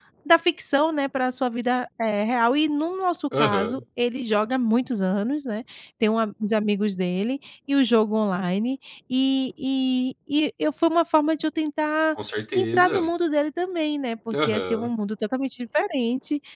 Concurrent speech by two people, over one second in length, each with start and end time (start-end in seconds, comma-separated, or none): none